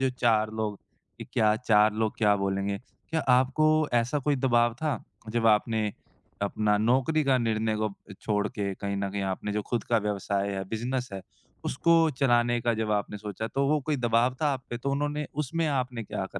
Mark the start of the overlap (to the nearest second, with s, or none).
none